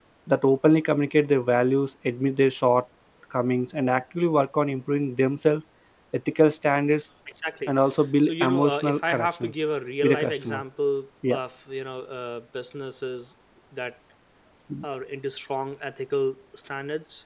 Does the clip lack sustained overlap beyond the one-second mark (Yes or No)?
No